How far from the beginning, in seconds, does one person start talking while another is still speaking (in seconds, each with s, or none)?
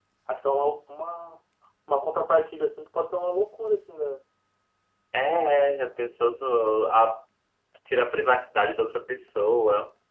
none